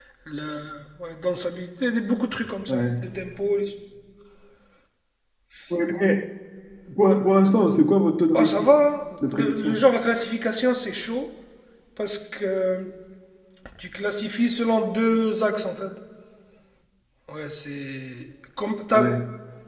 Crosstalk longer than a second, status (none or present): none